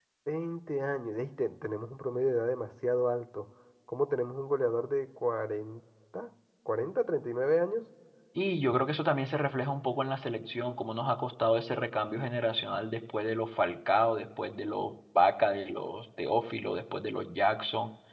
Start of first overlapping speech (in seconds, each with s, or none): none